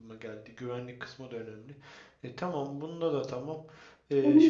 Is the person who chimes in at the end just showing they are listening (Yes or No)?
No